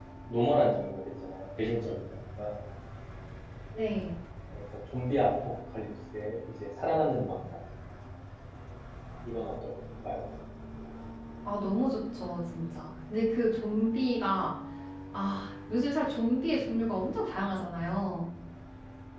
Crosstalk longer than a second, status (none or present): none